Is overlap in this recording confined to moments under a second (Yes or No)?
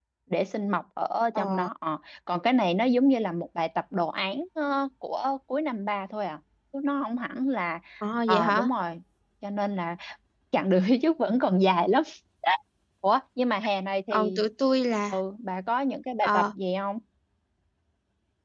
Yes